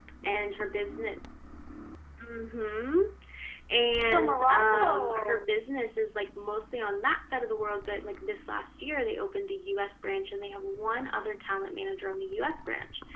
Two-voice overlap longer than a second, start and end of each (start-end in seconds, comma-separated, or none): 3.9-5.5